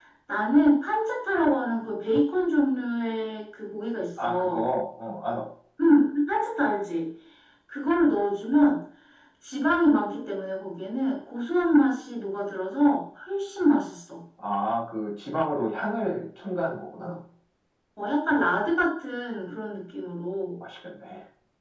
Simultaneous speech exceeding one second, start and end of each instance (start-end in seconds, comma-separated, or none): none